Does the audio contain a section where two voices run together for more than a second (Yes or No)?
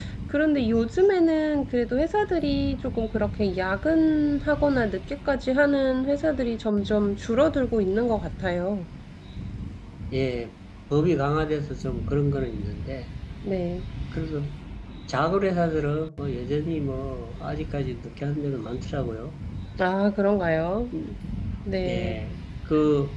No